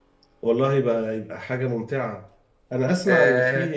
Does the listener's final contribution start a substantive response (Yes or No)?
No